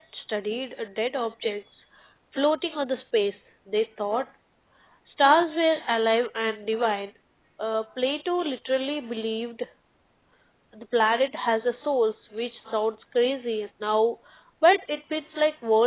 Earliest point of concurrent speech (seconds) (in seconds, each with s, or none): none